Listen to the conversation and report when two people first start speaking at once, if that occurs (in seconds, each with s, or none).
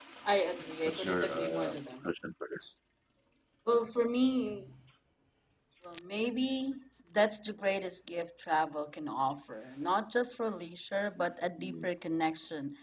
0.8 s